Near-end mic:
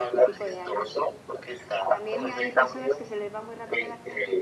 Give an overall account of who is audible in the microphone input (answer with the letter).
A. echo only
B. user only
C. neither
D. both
D